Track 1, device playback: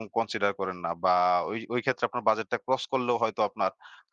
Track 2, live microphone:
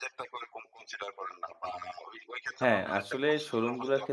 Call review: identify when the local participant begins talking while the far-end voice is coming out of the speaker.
2.6 s

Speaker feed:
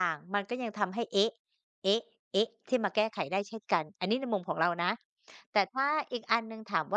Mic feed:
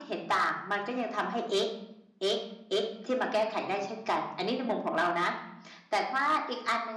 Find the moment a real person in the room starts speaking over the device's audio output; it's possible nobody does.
none

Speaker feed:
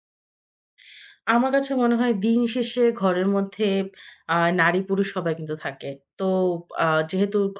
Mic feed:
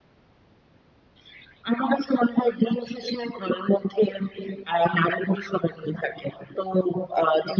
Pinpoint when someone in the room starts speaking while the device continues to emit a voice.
none

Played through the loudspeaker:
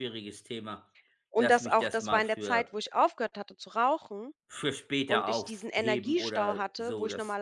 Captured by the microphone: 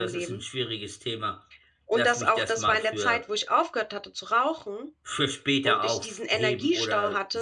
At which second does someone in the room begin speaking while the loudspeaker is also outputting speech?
none

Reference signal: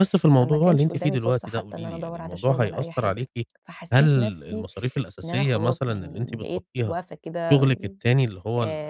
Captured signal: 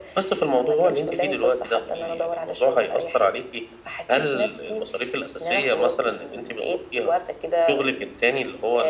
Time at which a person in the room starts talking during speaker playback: none

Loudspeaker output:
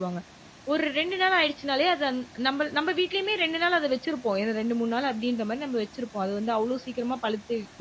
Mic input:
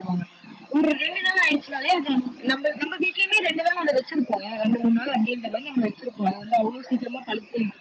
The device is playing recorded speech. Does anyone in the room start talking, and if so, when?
none

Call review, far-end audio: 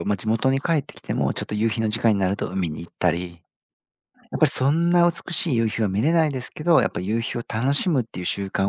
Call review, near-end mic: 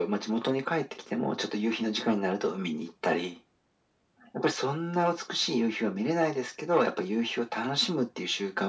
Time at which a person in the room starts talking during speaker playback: none

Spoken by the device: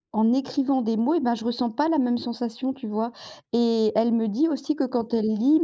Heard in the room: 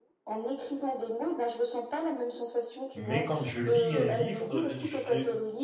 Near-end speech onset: 2.9 s

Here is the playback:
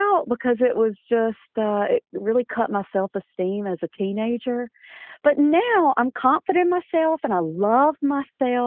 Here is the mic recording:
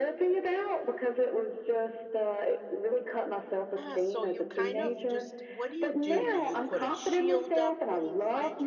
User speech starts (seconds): 3.8 s

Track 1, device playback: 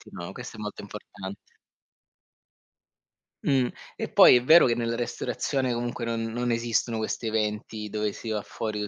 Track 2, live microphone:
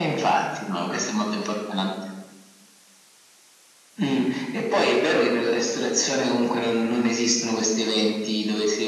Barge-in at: none

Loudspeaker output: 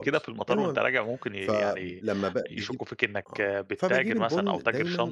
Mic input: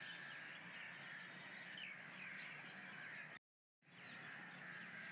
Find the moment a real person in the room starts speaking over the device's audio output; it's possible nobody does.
none

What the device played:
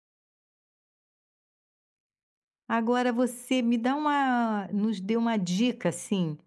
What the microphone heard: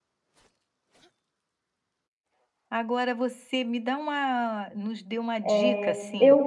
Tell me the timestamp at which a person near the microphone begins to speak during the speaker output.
5.4 s

